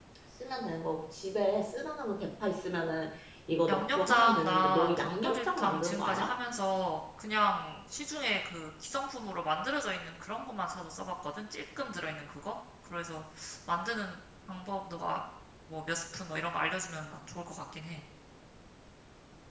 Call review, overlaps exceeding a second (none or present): present